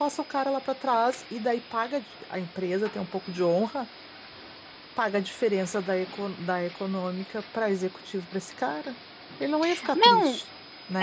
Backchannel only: No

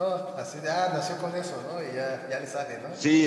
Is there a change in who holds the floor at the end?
Yes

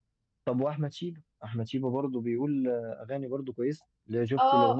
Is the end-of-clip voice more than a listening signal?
Yes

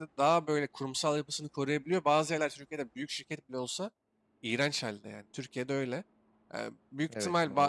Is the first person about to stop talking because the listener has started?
No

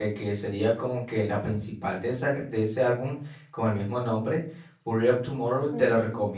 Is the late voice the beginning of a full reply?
No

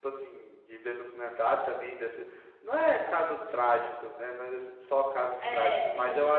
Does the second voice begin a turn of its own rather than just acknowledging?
No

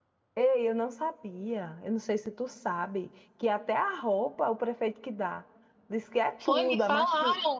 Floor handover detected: Yes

